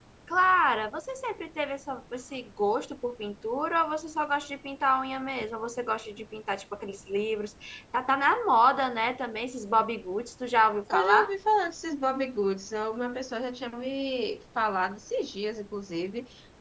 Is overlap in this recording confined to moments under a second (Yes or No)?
Yes